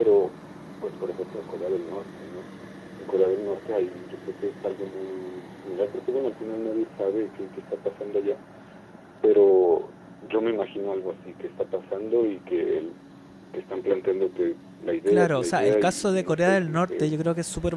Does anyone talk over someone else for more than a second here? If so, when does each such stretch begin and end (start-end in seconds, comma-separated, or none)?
15.1-17.1